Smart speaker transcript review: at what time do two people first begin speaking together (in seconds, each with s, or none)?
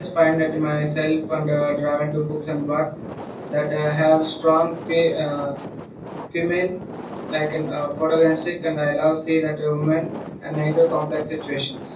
none